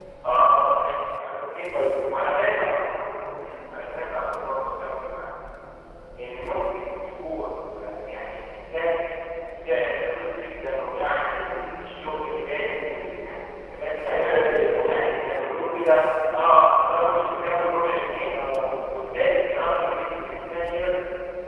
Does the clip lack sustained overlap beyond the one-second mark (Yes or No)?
Yes